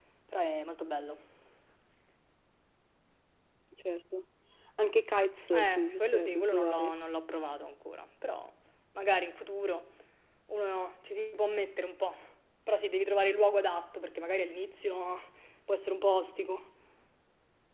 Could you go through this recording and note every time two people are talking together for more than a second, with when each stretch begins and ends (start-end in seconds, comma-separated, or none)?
5.5-6.9